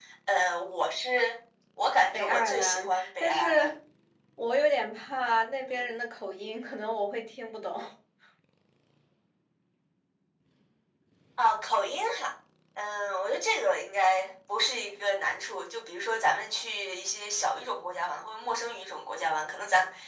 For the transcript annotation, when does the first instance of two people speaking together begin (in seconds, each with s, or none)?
2.1 s